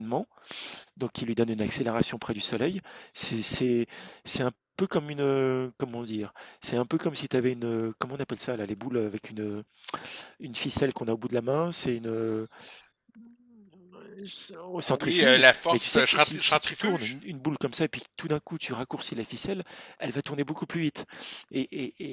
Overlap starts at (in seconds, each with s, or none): 14.9 s